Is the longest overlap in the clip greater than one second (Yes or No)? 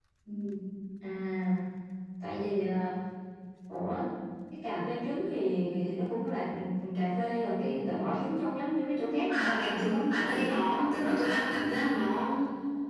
Yes